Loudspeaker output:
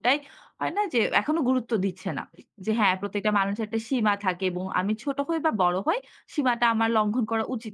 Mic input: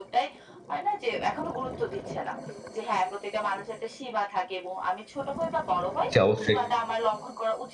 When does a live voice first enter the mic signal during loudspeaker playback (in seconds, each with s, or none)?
6.1 s